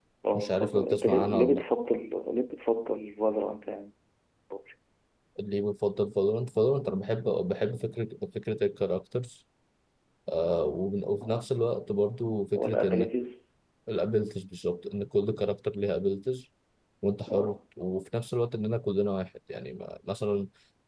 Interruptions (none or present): present